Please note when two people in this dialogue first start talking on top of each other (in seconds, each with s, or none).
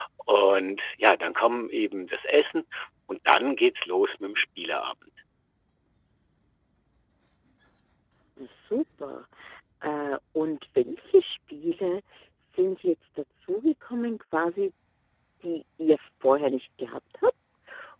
none